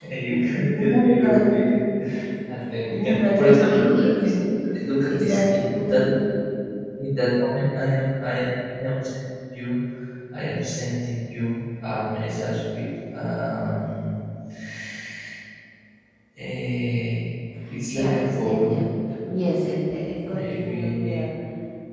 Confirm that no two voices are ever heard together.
No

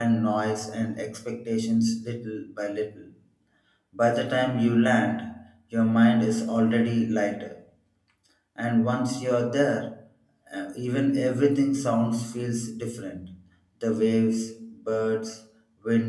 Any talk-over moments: No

